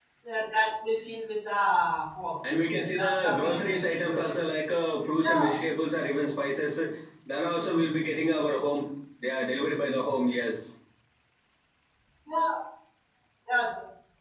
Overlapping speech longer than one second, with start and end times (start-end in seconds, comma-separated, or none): 3.0-4.2